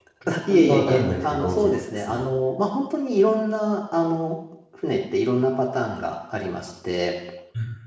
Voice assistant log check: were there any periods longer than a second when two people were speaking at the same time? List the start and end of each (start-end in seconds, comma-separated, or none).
0.5-2.2